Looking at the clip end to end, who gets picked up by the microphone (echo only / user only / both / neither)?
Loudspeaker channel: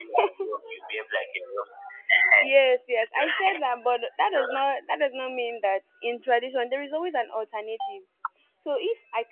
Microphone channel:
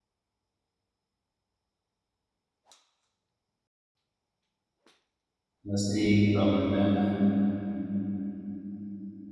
user only